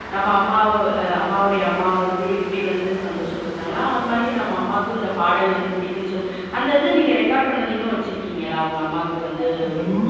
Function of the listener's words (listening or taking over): taking over